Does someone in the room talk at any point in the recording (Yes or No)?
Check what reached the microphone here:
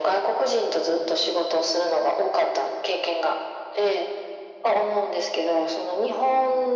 No